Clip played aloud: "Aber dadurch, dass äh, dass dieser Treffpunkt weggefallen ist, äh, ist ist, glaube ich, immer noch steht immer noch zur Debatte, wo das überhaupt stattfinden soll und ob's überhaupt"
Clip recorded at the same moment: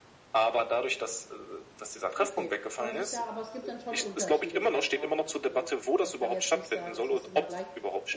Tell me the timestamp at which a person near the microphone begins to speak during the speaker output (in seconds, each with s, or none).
2.2 s